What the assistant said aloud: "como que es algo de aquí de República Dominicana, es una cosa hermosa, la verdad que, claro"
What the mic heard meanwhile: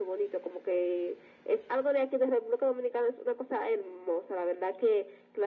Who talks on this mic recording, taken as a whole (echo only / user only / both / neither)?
echo only